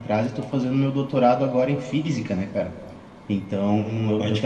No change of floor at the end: Yes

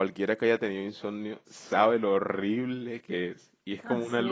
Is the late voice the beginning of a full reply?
No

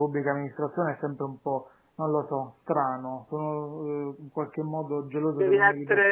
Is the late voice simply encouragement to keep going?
No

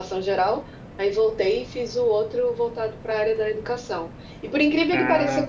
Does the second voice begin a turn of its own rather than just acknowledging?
No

